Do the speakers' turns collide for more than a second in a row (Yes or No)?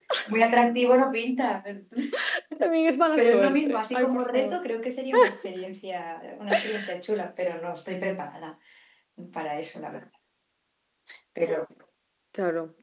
Yes